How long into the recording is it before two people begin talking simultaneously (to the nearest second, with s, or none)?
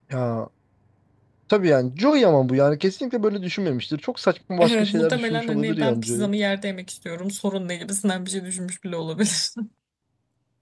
5 s